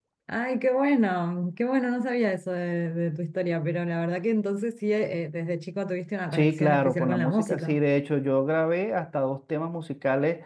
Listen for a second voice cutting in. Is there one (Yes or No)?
Yes